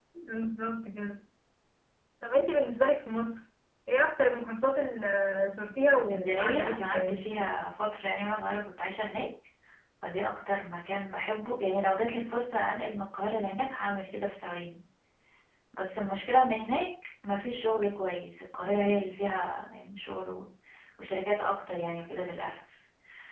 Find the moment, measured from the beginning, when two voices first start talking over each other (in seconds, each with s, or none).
6.1 s